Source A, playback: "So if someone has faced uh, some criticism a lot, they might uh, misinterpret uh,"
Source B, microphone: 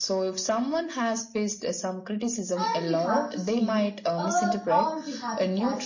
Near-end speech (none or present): present